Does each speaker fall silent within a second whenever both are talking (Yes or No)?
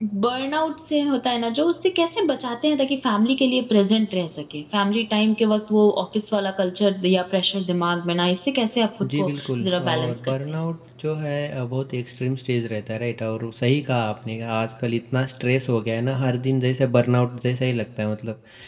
No